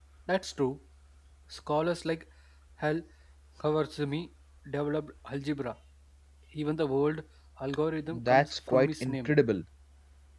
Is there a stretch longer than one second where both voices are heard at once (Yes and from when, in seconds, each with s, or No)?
Yes, from 8.1 s